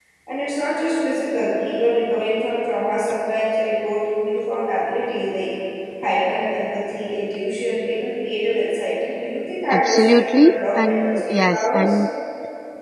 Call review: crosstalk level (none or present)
present